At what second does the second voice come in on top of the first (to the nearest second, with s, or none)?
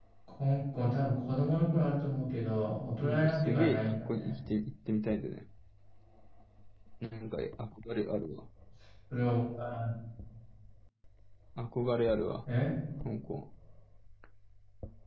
3 s